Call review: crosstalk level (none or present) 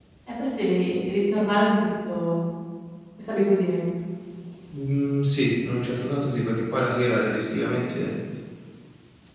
none